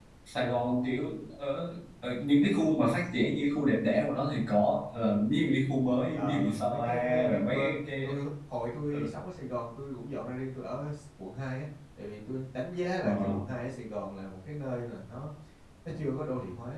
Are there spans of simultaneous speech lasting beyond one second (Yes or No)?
Yes